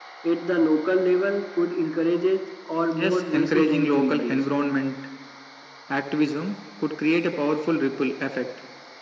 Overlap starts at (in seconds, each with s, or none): 3.0 s